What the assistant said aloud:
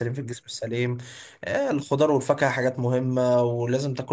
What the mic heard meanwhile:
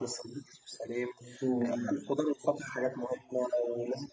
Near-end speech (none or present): present